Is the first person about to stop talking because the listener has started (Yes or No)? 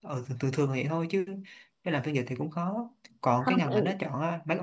No